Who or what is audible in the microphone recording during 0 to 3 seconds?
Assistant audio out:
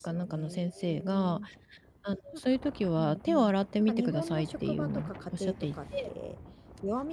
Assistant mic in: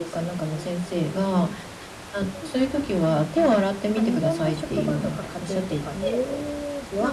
echo only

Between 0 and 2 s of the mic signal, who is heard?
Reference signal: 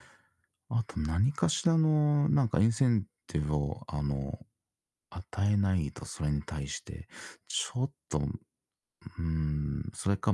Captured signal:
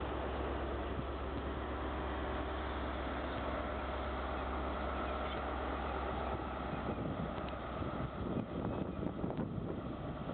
neither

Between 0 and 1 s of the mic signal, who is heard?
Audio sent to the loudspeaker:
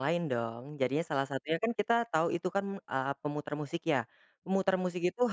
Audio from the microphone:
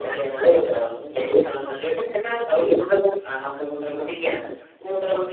echo only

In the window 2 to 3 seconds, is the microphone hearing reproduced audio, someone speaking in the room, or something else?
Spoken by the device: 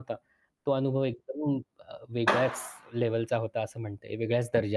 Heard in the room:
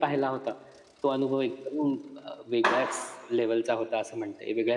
echo only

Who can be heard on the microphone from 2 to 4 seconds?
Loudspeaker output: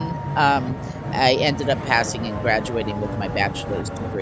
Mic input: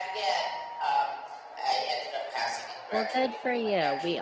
both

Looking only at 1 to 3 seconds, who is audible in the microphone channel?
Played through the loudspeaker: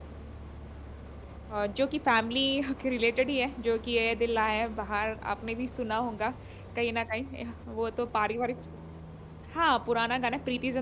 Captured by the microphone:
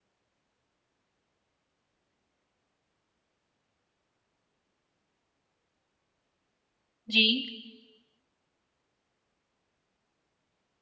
neither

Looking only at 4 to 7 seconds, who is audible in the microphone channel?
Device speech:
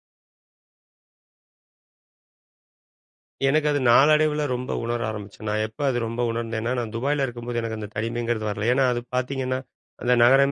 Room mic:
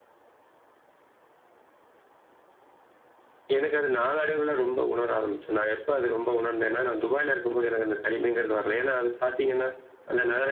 echo only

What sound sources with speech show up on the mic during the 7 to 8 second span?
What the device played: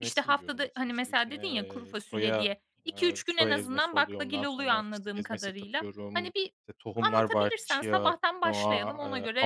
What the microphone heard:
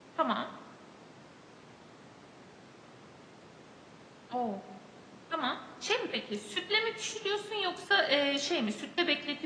user only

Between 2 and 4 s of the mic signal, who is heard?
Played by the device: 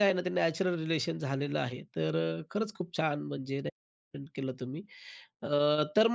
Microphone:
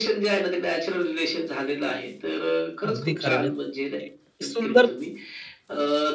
both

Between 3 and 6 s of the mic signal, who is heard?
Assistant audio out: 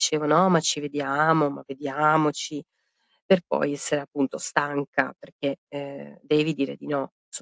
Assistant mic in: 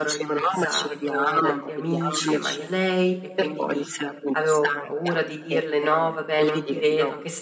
both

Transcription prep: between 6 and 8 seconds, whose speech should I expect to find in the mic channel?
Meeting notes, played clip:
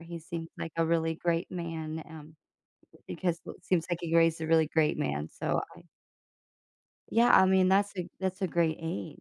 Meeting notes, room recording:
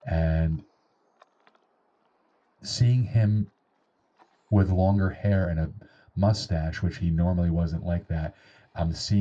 user only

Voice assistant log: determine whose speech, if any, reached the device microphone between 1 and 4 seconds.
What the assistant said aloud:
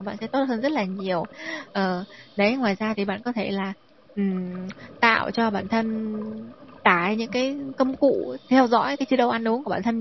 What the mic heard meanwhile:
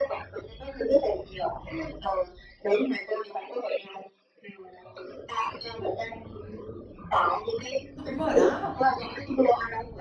echo only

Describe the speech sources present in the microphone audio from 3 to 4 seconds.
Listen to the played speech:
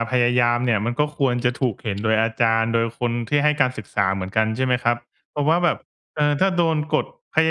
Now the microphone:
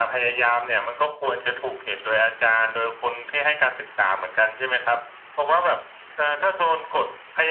echo only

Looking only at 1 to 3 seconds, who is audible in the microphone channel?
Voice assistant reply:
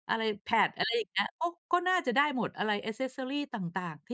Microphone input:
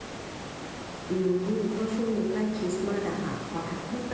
user only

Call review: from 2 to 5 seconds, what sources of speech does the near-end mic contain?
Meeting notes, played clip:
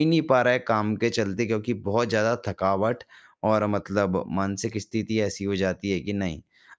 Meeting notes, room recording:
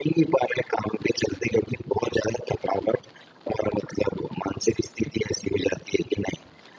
echo only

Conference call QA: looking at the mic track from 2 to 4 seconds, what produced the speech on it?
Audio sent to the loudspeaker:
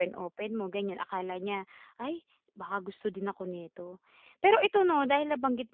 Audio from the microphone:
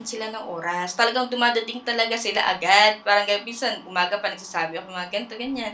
user only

